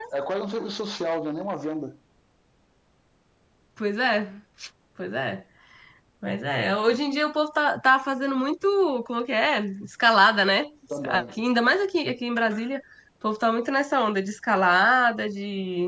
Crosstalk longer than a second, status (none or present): none